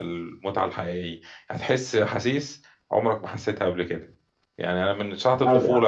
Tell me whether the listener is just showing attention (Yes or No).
Yes